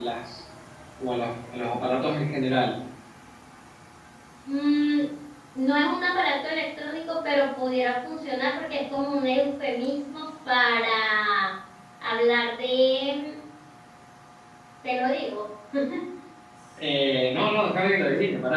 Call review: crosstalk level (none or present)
none